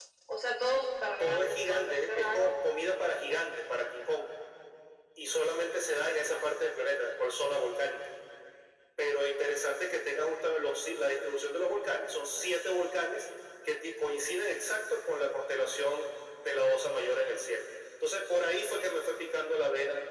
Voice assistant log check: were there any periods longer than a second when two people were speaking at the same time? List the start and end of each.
1.2-2.6

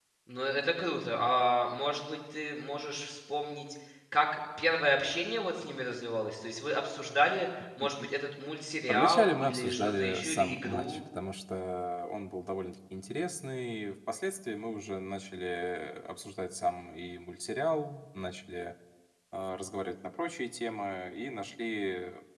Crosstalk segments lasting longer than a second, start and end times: 8.9-11.0

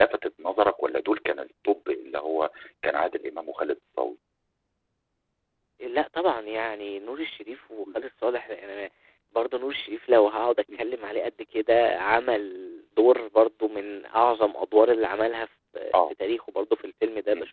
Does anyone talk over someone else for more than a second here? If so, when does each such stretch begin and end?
none

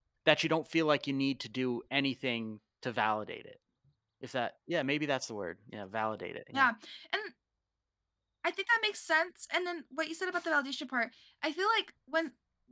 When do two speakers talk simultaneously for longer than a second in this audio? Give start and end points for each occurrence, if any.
none

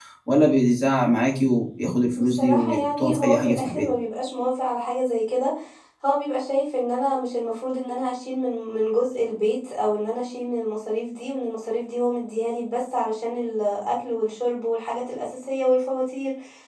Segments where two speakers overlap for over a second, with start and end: 2.2-3.9

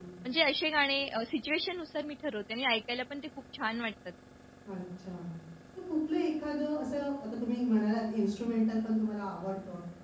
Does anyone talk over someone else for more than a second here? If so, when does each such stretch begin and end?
none

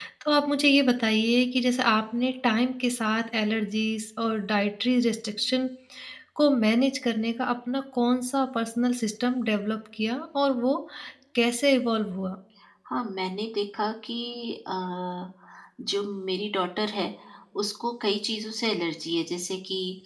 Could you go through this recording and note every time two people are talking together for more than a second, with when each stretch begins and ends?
none

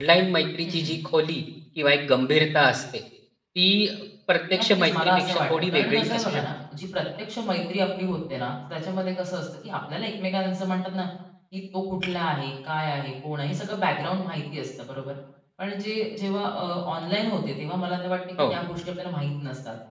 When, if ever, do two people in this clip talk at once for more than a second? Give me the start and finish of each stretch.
4.5-6.4

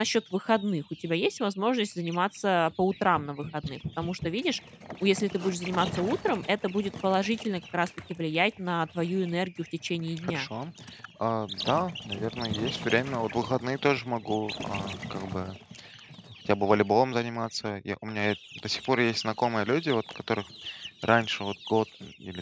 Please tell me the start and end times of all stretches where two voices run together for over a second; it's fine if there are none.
none

